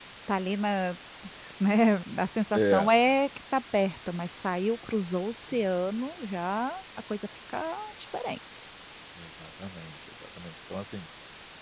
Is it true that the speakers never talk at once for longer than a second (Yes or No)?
Yes